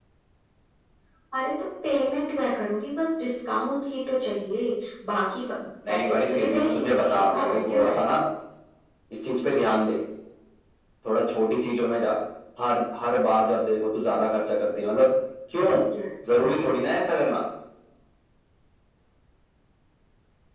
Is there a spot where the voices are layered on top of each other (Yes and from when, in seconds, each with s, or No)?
Yes, from 5.9 s